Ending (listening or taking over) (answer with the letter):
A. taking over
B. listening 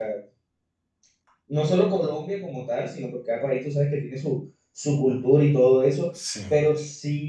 B